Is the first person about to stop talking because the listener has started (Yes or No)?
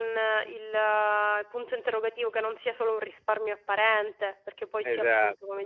Yes